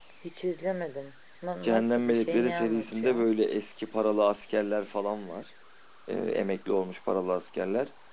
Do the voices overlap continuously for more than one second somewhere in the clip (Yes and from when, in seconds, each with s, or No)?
Yes, from 1.6 s